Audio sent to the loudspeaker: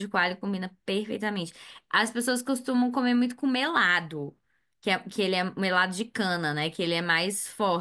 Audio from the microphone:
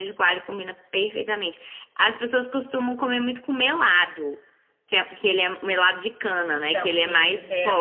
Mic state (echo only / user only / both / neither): both